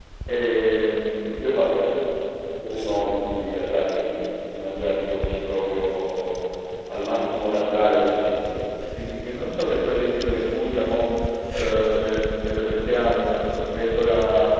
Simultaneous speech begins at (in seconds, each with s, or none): none